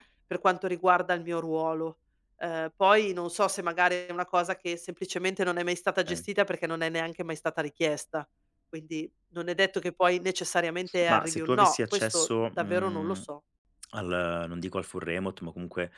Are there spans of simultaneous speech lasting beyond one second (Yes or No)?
Yes